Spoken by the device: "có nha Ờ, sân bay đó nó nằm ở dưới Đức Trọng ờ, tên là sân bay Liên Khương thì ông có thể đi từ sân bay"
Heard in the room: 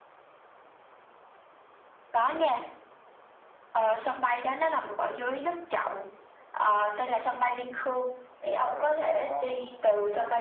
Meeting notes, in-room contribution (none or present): present